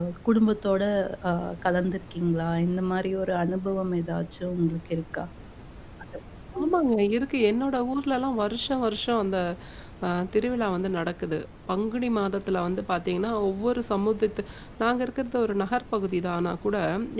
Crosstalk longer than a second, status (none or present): none